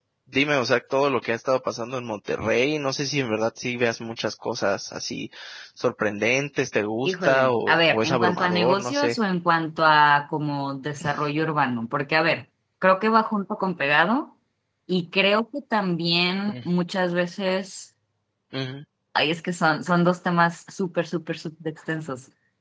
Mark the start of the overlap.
7.0 s

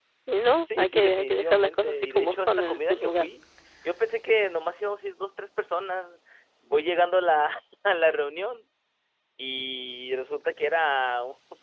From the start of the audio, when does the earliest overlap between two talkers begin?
0.8 s

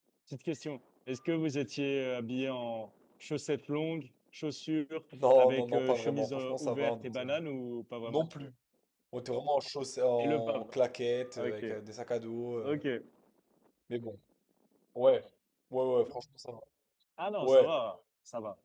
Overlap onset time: 5.4 s

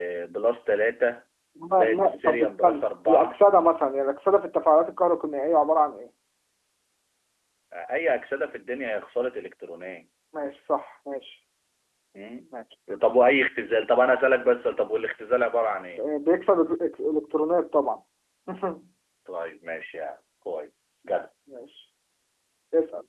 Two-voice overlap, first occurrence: 1.7 s

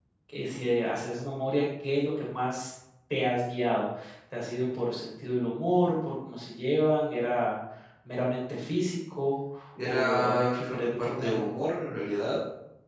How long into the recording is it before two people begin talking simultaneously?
9.8 s

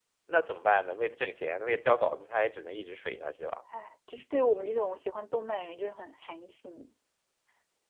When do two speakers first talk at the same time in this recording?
none

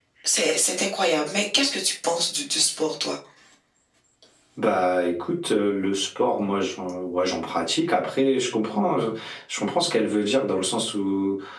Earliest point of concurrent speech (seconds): none

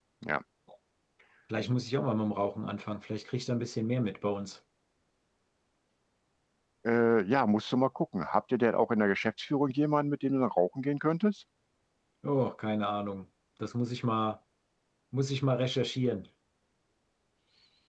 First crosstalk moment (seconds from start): none

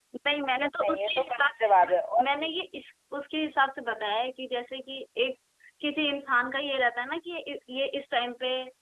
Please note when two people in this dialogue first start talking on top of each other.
0.8 s

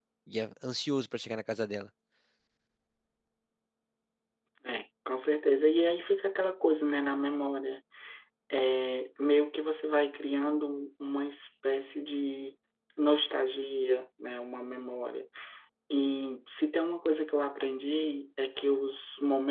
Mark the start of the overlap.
none

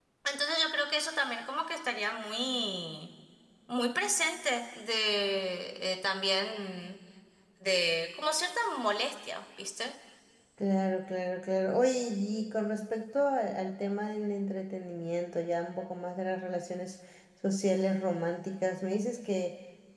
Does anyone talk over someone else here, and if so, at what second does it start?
none

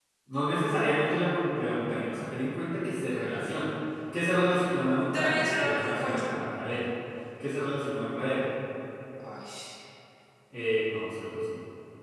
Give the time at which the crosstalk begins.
5.0 s

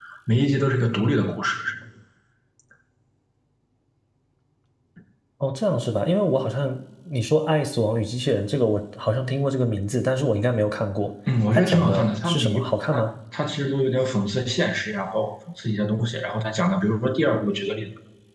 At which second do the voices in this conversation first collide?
11.5 s

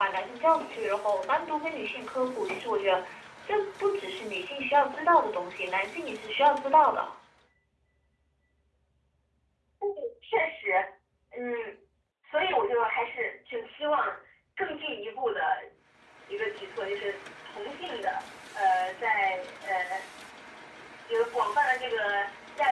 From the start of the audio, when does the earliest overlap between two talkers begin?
none

